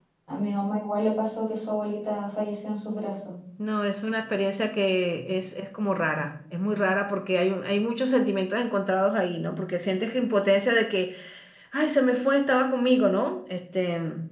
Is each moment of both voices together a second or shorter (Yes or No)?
Yes